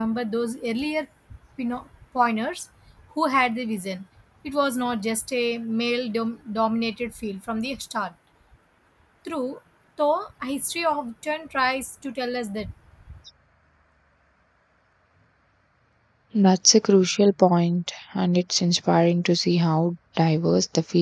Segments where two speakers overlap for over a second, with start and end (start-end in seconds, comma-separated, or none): none